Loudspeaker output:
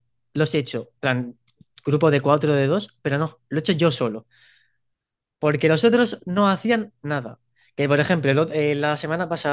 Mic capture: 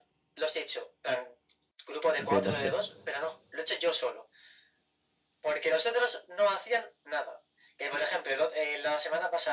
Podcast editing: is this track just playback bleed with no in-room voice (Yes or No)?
No